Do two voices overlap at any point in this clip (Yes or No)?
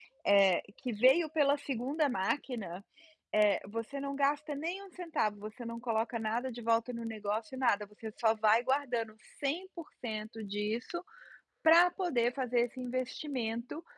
No